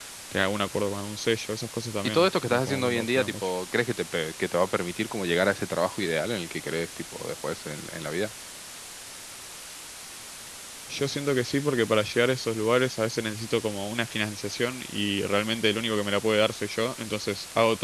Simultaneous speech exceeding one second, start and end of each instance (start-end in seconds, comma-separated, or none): 2.0-3.5